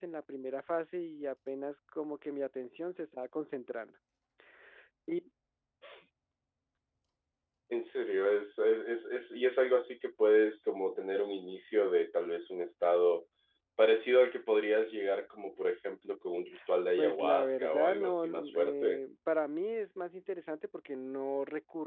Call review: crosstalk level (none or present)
present